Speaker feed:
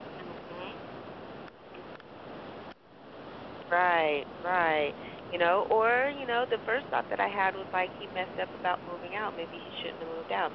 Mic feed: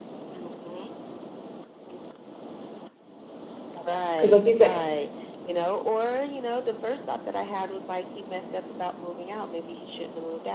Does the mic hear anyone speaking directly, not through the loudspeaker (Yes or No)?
Yes